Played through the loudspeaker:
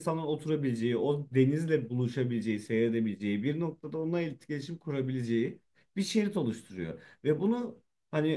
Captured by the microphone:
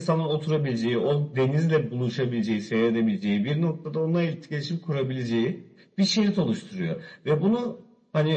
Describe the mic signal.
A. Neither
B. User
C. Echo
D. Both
C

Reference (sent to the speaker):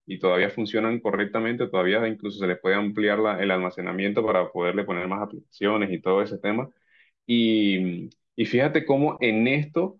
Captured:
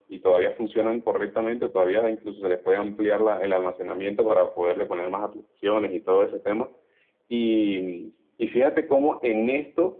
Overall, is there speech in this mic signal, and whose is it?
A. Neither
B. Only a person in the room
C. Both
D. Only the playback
D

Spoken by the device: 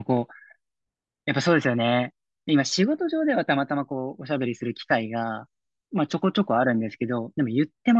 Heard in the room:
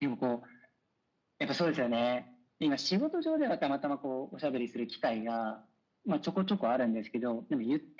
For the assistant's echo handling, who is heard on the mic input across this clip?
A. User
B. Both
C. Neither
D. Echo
D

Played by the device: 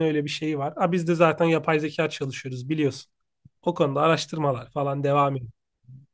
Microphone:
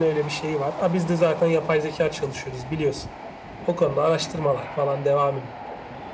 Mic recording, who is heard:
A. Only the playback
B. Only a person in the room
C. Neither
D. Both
A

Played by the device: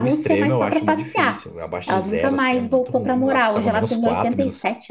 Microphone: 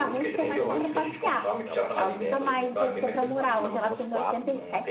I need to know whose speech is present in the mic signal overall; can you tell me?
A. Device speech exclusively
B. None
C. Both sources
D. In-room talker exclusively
C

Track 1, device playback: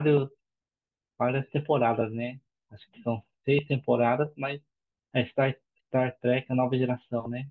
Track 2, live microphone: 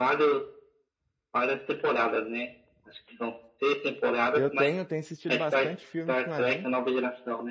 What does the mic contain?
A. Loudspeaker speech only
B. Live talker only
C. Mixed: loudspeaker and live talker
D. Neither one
C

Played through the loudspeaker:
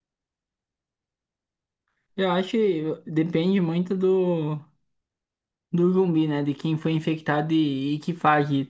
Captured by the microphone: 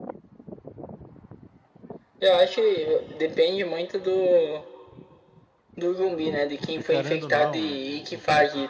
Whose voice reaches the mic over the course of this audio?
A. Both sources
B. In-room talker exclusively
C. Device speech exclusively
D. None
A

